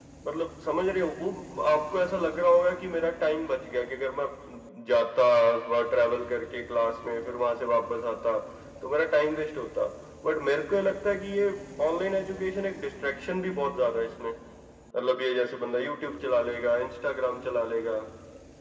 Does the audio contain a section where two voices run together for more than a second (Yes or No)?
No